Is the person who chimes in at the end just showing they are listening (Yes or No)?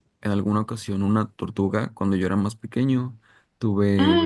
Yes